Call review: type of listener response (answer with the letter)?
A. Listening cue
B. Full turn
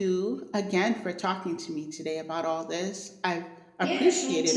B